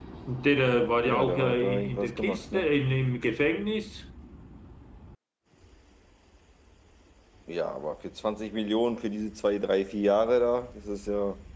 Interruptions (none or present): present